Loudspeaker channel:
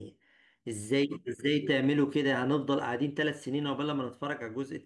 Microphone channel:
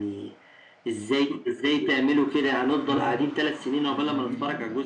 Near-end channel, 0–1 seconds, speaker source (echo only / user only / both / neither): echo only